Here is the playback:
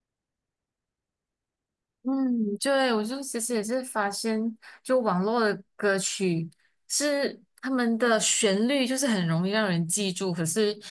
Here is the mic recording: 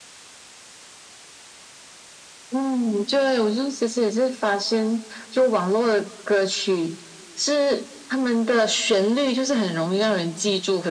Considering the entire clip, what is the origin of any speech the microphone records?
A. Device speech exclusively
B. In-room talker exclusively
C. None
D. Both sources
A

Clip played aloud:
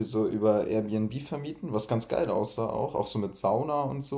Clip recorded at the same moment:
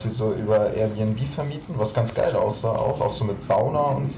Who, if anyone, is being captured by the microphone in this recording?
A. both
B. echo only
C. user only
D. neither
B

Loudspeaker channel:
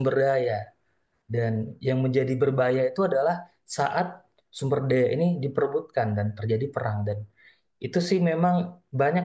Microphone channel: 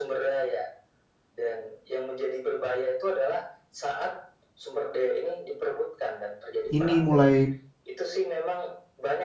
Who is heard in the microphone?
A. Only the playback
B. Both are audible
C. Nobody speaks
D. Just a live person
B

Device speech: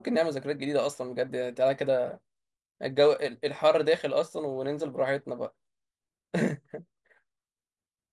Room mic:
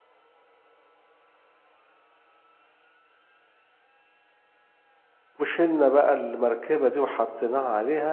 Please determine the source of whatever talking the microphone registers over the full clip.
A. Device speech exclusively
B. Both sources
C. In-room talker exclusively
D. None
C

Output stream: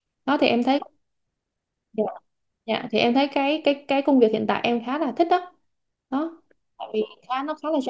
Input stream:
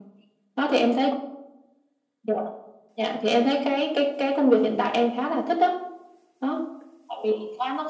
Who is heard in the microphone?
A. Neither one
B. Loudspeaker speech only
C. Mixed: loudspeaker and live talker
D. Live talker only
B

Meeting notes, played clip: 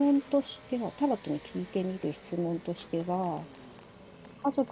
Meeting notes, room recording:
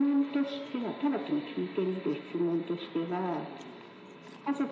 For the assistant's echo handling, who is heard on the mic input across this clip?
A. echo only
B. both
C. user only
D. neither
A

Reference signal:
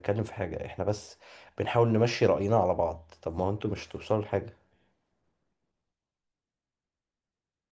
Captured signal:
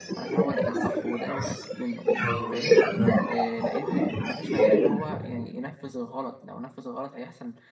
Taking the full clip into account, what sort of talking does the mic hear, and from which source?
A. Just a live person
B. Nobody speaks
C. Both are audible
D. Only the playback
C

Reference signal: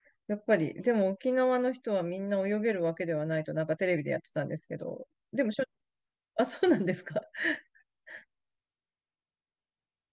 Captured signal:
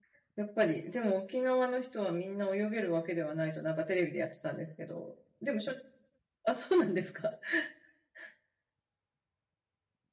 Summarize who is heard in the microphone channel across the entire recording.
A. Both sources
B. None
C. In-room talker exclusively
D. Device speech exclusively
D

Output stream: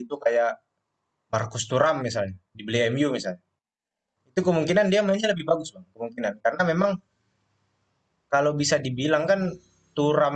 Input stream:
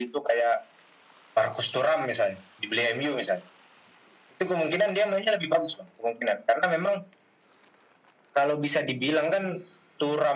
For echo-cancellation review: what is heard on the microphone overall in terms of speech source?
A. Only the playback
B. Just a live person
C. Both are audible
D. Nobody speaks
A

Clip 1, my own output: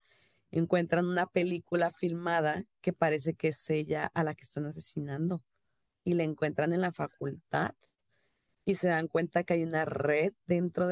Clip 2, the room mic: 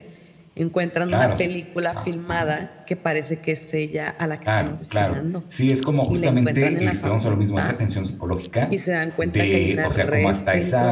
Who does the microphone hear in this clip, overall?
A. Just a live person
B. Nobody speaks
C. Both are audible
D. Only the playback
C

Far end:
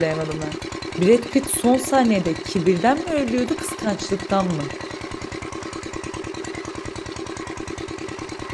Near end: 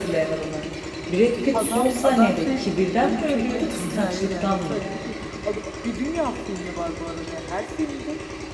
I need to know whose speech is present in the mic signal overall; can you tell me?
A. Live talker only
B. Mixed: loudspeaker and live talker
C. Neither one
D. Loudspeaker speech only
B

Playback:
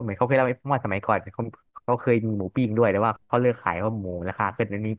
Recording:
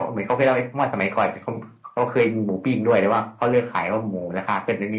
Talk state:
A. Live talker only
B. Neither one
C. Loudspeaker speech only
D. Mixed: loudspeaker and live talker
C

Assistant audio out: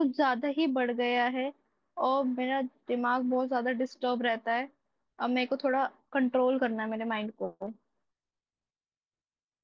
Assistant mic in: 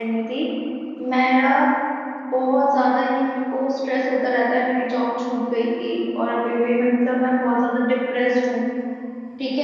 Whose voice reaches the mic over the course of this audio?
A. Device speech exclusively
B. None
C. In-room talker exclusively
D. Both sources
C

